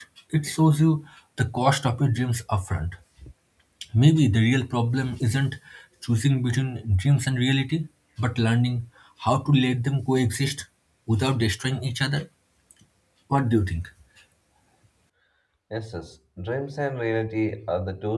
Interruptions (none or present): none